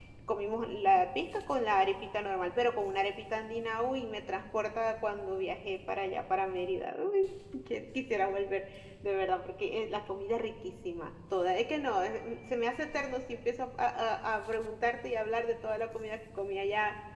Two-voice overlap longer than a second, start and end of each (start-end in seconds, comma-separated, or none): none